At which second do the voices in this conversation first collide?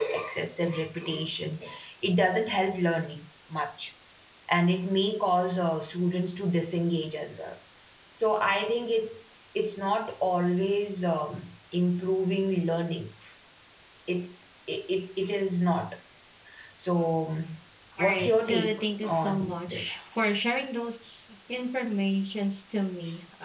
18 s

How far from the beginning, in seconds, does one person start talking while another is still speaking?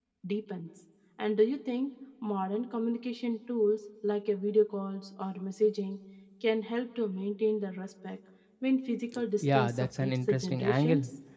9 s

